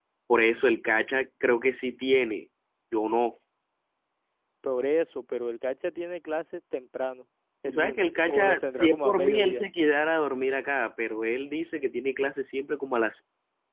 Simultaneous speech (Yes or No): Yes